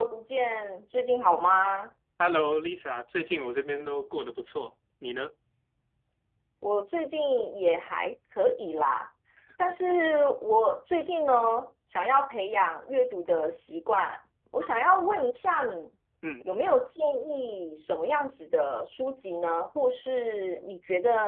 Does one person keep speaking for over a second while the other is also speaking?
No

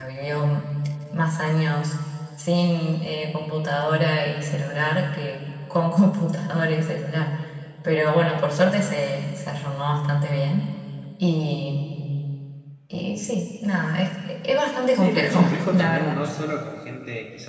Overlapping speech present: Yes, from 14.9 s

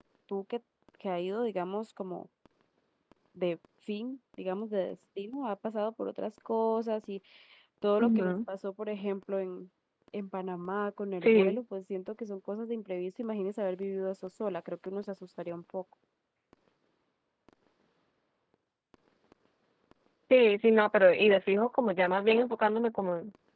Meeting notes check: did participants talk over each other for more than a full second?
No

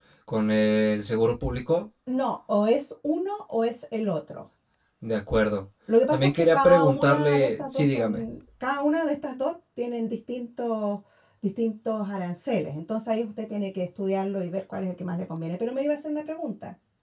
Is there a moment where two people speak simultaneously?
Yes, from 6.1 s

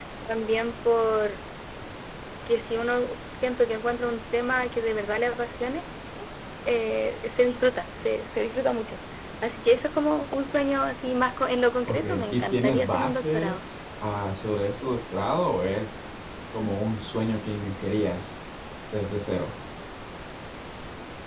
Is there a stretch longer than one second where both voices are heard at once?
Yes, from 11.9 s

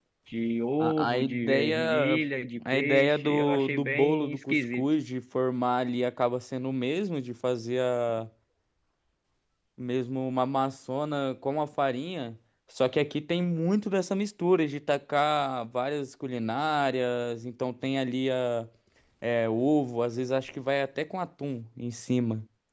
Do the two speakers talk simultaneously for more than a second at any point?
Yes, from 0.8 s

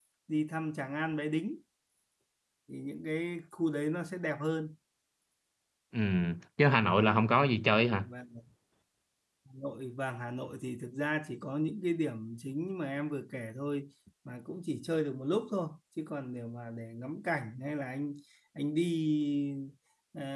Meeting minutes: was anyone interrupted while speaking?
No

